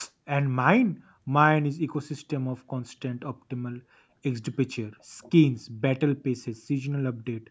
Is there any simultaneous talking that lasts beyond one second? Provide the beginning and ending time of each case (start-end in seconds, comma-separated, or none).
none